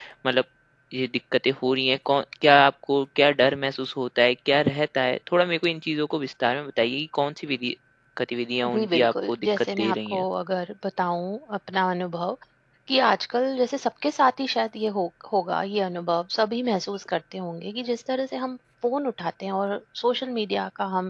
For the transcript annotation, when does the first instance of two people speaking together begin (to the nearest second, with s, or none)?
9 s